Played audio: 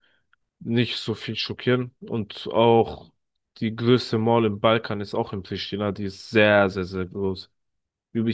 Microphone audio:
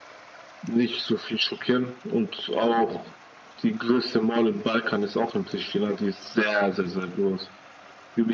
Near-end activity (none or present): none